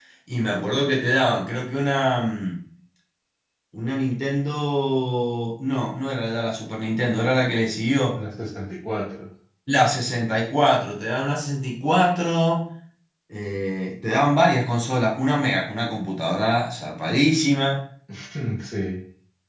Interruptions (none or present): none